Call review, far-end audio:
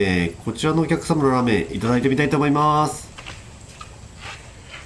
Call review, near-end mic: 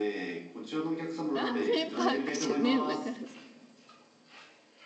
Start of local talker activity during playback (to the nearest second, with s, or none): 1 s